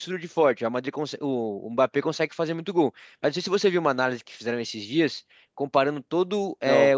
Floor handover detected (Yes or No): No